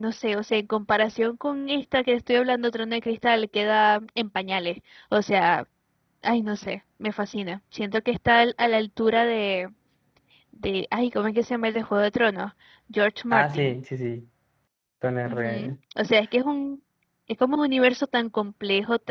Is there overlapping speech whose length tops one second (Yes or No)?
No